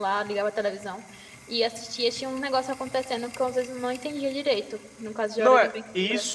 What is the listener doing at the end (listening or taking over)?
taking over